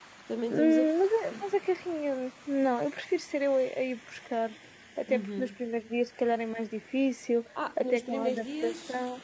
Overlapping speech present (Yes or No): Yes